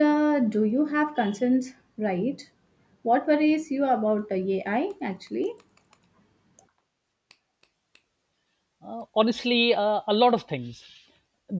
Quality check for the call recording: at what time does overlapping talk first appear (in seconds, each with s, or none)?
none